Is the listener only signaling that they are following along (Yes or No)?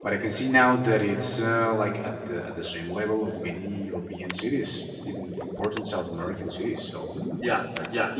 No